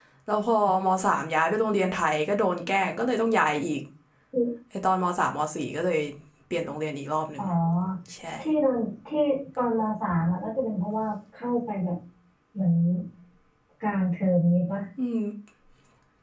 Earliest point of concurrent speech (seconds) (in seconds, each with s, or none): none